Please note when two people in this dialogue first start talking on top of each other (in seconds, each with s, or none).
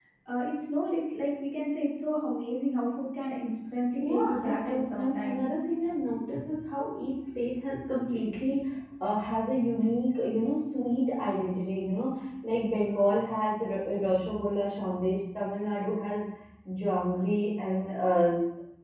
4.0 s